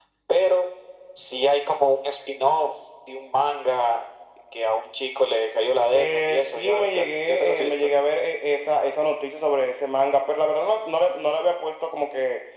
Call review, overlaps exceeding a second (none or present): present